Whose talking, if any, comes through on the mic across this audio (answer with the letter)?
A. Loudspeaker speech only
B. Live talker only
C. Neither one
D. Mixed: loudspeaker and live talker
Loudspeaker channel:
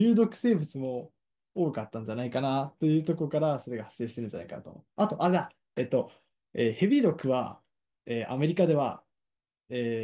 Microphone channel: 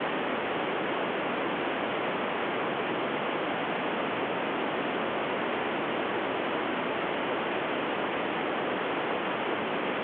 C